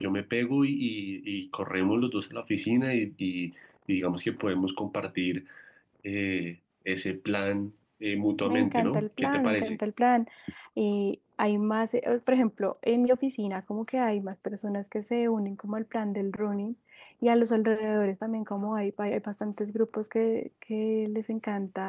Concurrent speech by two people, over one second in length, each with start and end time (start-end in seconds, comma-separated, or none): 8.4-9.8